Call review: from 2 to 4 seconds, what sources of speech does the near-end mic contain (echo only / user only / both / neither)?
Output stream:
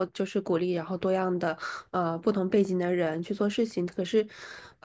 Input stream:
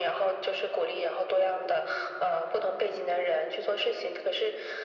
echo only